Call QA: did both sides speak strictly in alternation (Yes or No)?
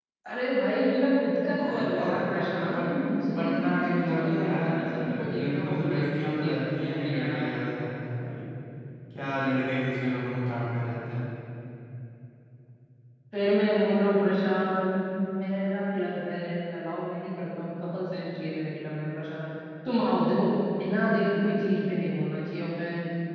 No